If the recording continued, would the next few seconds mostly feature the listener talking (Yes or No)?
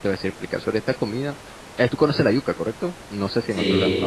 Yes